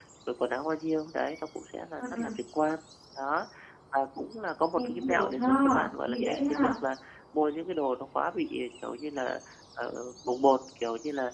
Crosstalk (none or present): present